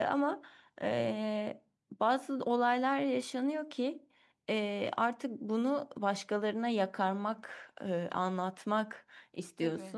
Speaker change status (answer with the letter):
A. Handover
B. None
B